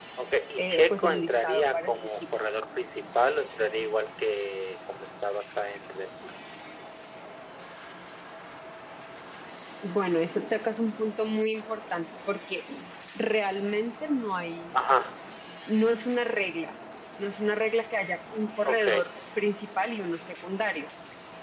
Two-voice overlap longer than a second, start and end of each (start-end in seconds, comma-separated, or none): 0.6-2.2